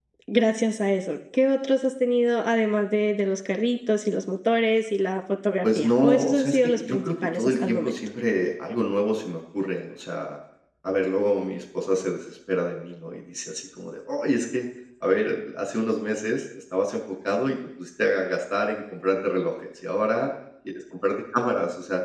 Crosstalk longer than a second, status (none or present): present